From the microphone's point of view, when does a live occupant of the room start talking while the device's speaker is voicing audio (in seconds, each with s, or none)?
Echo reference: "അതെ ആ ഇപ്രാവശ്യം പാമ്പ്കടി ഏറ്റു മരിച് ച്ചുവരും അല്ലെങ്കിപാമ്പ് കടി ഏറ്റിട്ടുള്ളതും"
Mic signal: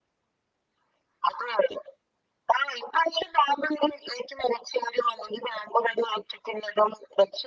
none